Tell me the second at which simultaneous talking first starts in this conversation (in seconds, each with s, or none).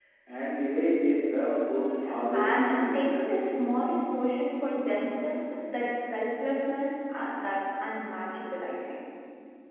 2.3 s